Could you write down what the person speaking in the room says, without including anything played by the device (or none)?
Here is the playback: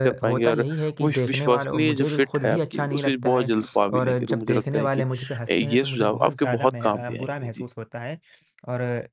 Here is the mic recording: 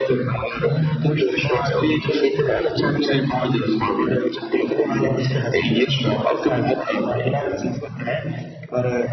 none